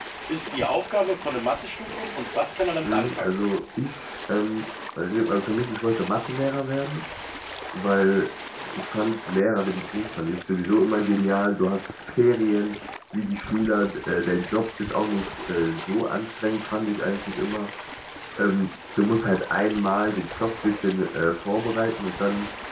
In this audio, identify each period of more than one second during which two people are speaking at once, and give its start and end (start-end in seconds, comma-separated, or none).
none